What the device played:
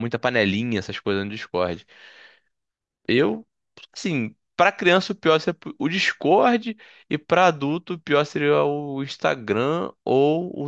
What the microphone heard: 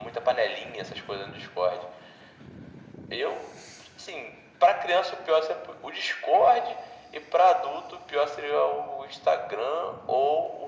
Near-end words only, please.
none

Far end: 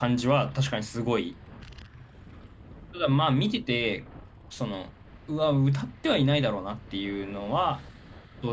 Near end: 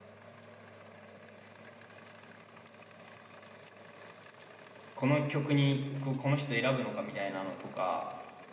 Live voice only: この曲にこ、この人選ぶのかみたいなのとか、

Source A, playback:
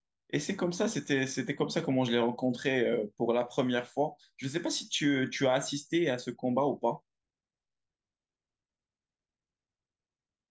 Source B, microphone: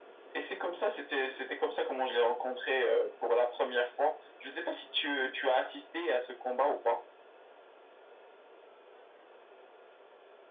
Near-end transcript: none

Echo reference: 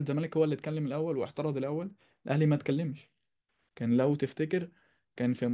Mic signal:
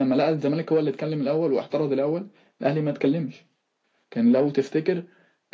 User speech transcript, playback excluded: none

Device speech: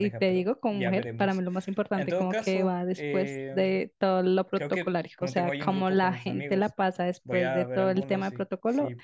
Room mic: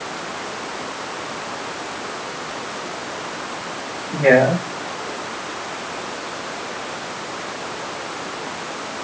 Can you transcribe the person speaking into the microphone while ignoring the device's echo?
ya.

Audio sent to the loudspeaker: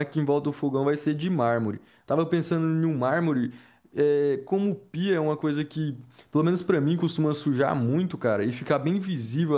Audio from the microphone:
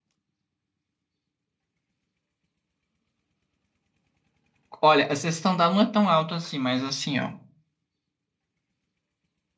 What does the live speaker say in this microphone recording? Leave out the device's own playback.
olha, a sessão da não é tão alta assim, mas assim, ó,

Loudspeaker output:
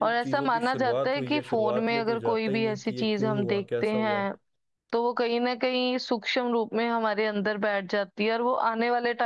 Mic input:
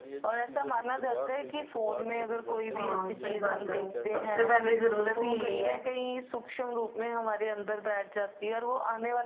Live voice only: हाँ सही बात है सबसे पहली जरूरत ही यही है

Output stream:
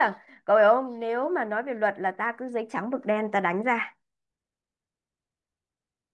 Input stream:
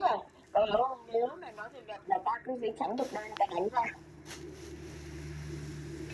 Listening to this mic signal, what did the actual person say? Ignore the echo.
none

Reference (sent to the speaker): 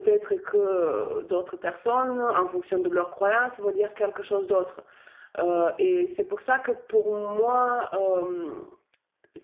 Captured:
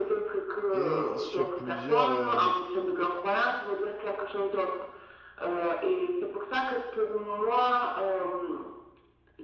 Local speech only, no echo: et sur plusieurs, euh,

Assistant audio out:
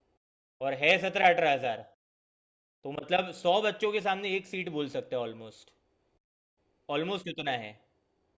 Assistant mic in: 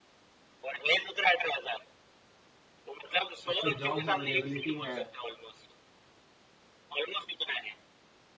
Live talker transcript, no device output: उस पर जॉब्स अवेलेबिलिटी है

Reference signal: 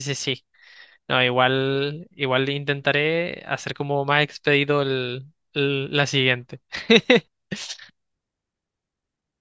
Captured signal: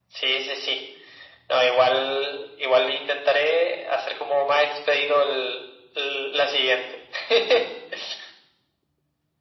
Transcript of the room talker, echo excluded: none

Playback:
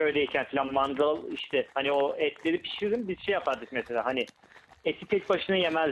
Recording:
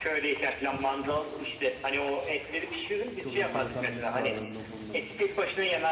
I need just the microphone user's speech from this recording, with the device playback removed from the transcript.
Çok enteresan bir his var bende o konuda.

